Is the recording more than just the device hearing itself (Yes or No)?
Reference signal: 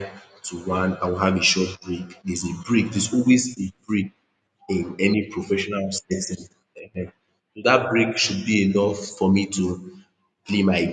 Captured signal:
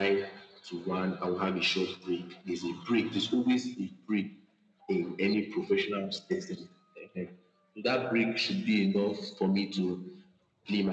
No